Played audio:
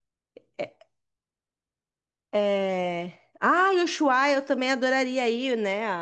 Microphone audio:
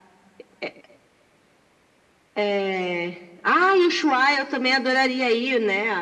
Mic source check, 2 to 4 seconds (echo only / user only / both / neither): echo only